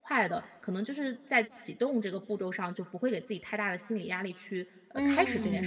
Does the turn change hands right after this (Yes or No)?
Yes